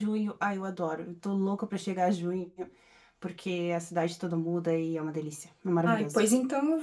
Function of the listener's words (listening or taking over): taking over